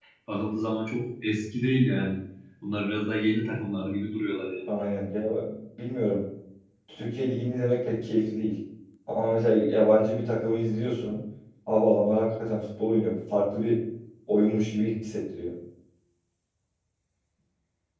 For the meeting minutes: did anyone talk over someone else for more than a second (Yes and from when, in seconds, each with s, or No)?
No